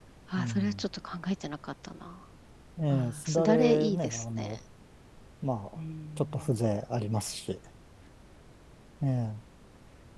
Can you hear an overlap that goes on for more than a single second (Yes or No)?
Yes